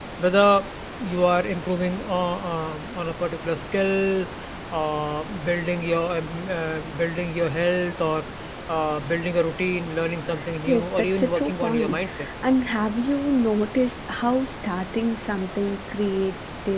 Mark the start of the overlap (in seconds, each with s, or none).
10.7 s